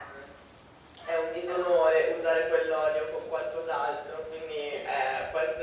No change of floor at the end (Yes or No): Yes